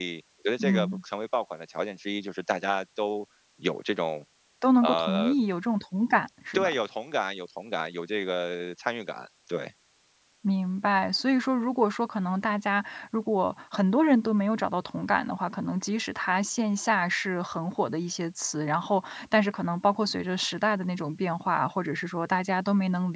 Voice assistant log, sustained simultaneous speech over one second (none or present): none